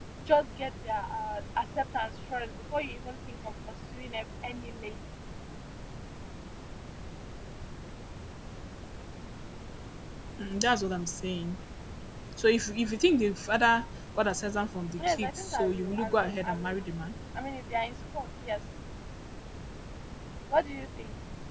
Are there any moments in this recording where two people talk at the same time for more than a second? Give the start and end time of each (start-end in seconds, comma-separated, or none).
15.0-16.8